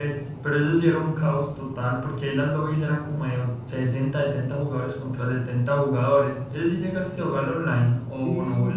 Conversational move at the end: taking over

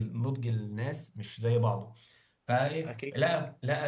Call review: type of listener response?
listening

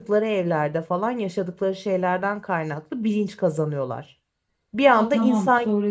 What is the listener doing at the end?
taking over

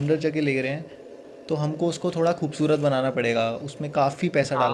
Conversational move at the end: taking over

